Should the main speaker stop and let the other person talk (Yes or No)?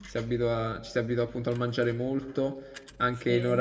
No